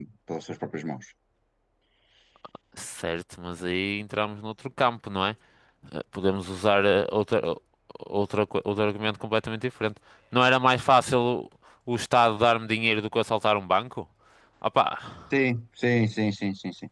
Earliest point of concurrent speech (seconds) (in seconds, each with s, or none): none